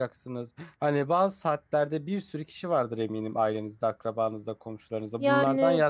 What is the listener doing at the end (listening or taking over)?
listening